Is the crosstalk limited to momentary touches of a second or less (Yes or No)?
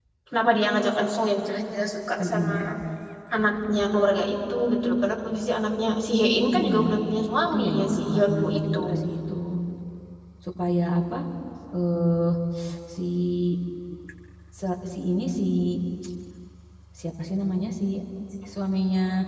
No